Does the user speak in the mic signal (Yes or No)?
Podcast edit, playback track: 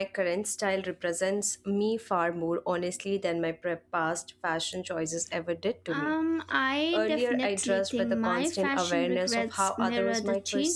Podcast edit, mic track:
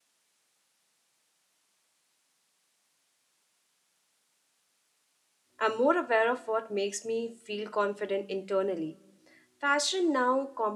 Yes